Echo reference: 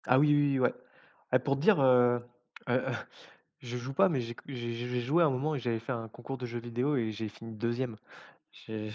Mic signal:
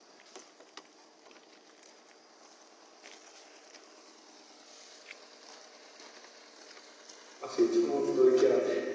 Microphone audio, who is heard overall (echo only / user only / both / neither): user only